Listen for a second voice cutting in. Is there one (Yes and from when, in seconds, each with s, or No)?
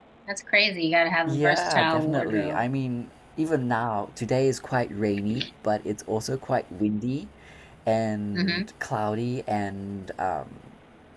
Yes, from 1.3 s